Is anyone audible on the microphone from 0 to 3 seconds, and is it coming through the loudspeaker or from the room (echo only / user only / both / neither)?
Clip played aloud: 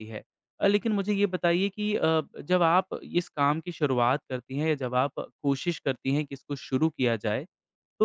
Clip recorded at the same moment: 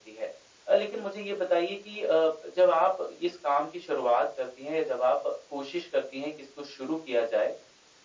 echo only